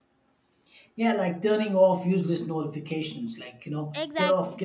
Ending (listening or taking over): listening